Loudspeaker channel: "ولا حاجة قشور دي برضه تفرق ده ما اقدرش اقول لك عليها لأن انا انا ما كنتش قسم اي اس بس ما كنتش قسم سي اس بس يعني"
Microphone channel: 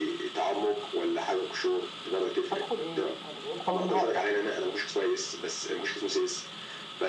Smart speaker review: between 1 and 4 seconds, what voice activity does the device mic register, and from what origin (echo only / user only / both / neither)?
both